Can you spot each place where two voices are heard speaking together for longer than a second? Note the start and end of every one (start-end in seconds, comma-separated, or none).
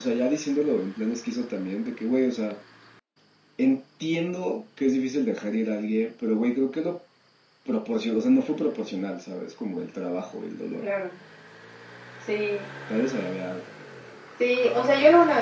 none